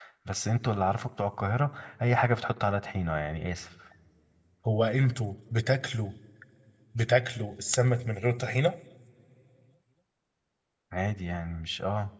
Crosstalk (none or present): none